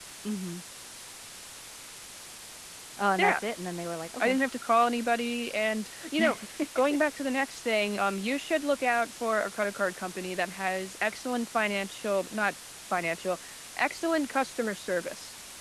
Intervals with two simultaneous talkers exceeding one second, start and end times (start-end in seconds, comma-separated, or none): none